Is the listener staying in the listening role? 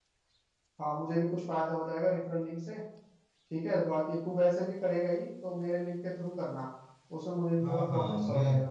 No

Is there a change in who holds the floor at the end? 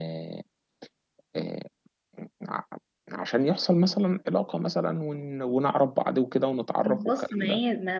Yes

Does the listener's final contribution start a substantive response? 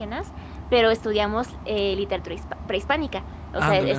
No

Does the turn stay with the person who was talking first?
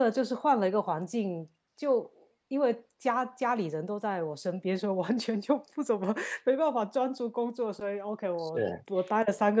Yes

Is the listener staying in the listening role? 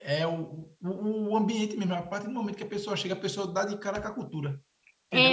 No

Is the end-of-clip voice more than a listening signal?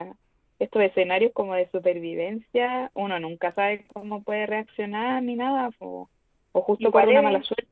No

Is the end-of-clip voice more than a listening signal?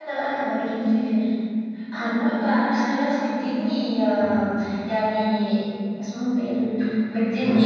No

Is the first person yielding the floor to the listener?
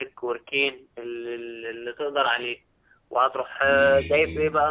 No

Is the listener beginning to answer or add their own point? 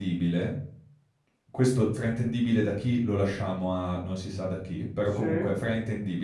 No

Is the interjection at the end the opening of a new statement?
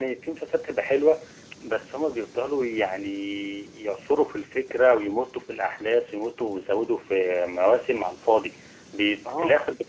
No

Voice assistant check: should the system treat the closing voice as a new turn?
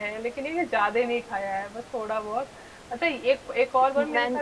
No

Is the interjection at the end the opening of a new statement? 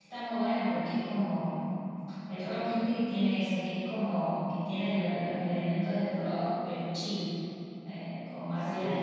Yes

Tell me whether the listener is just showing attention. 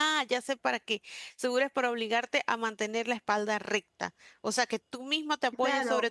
No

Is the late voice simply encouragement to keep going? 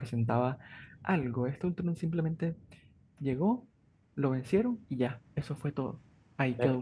No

